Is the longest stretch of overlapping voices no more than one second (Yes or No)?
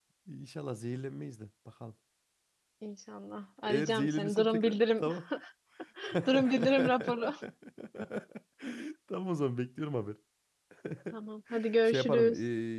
No